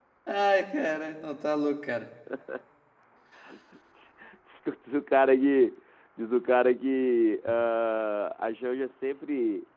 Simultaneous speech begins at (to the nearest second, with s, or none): none